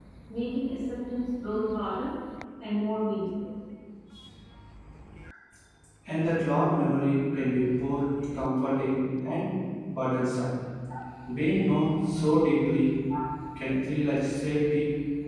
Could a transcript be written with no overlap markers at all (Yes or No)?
Yes